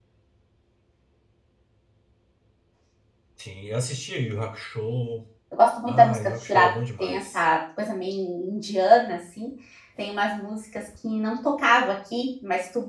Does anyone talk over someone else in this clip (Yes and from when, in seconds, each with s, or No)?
Yes, from 5.9 s